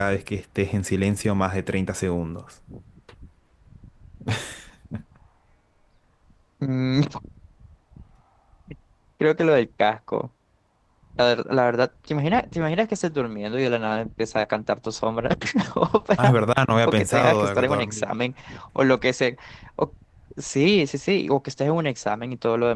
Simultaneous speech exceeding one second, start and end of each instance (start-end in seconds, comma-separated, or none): 16.9-18.1